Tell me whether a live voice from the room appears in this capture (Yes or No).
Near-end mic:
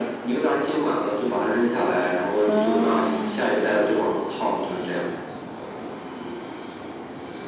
Yes